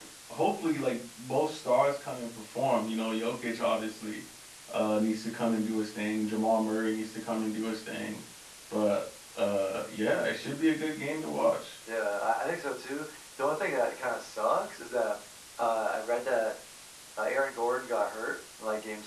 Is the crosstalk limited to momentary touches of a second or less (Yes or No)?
Yes